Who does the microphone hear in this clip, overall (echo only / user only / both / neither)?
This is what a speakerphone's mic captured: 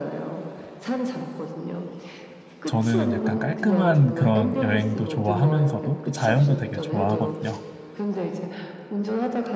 both